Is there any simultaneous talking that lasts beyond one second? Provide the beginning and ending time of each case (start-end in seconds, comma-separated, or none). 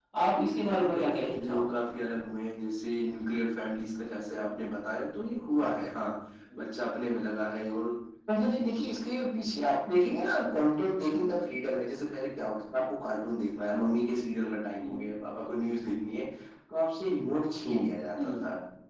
0.5-1.8